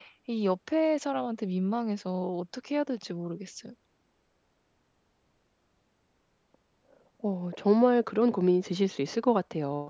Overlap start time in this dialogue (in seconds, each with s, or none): none